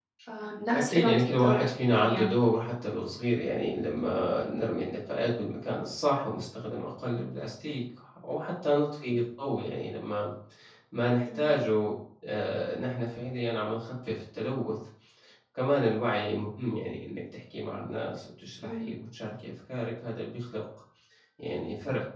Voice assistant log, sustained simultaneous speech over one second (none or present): present